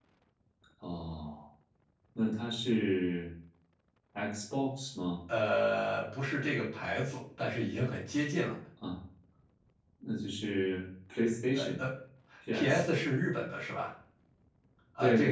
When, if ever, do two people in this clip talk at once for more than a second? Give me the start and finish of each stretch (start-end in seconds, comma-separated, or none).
none